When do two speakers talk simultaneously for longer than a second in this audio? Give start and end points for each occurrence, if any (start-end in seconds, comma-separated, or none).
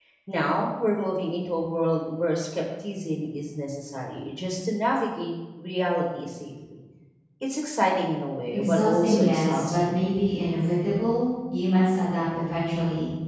8.5-10.1